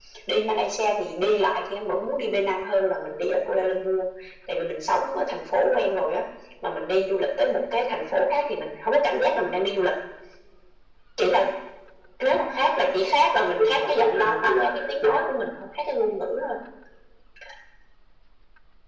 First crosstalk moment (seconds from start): 13.6 s

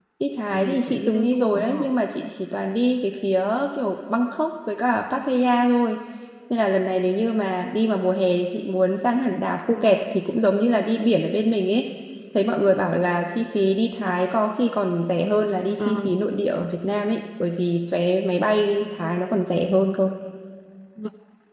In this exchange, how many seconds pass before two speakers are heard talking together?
0.5 s

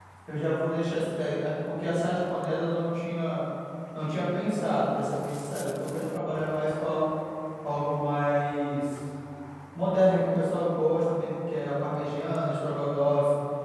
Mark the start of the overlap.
none

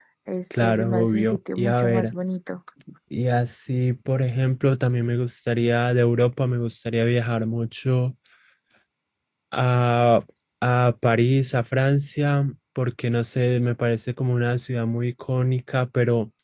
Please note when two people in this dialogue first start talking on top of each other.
0.6 s

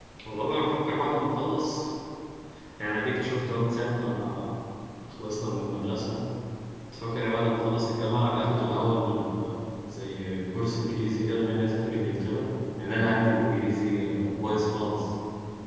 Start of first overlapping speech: none

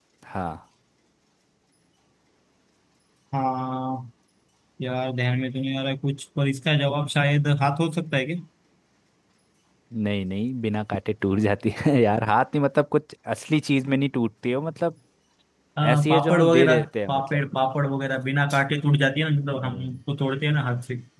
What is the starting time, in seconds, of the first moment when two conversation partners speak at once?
15.9 s

